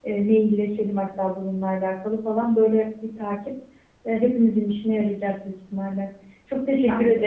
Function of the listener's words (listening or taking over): listening